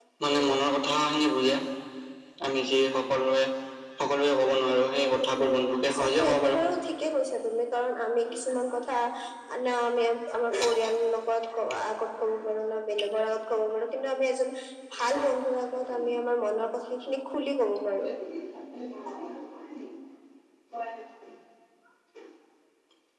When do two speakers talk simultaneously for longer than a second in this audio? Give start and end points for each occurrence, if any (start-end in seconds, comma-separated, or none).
5.1-6.6